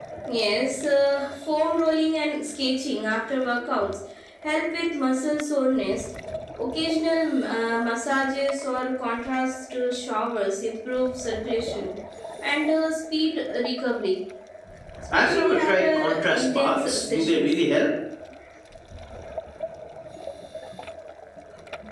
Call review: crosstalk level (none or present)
present